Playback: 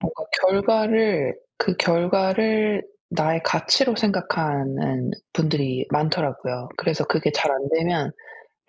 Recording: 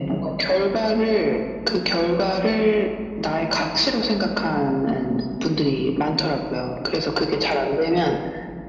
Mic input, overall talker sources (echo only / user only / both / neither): echo only